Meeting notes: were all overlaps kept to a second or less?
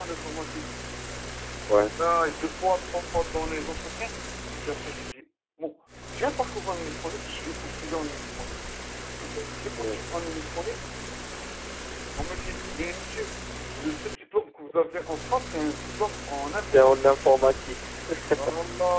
Yes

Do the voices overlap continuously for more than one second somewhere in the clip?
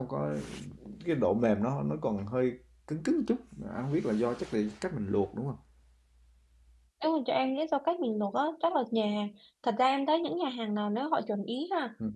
No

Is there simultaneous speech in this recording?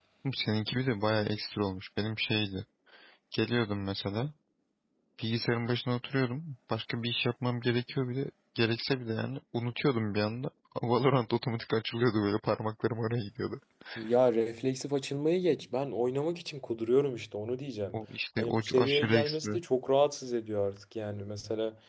Yes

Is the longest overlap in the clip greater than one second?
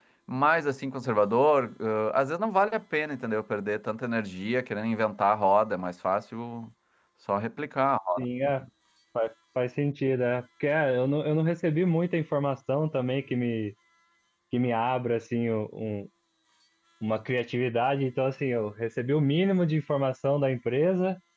No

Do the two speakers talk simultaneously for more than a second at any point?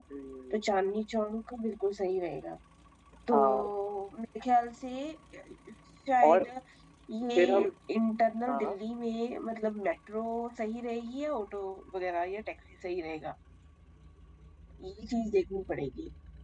No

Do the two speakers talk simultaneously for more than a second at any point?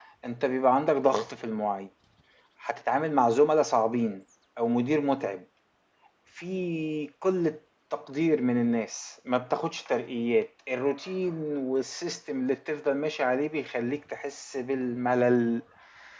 No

